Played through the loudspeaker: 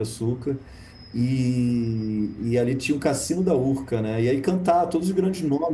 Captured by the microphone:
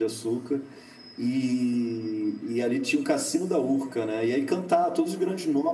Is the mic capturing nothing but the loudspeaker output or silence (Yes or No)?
Yes